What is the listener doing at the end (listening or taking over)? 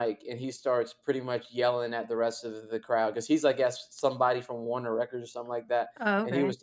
listening